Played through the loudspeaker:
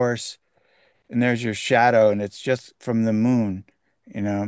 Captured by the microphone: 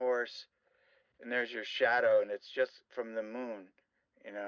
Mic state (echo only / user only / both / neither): echo only